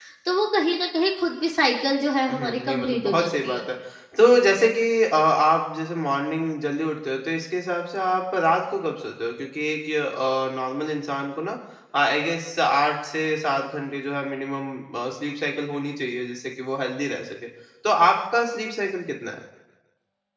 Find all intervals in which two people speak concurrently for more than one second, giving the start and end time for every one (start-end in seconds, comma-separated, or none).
2.3-3.6